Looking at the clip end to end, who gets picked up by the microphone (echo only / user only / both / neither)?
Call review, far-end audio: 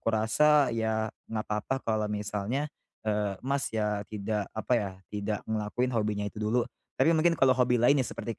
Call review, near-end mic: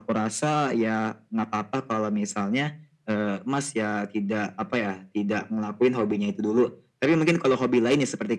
echo only